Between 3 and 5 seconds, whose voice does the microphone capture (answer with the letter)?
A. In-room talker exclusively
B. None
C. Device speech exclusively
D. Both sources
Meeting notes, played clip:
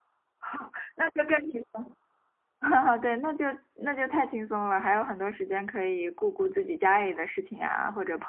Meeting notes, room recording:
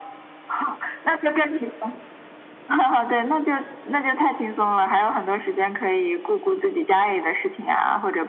C